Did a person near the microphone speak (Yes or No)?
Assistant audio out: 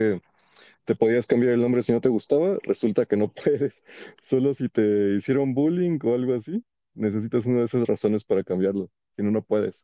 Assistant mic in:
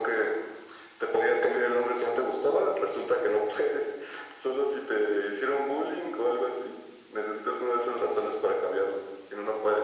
No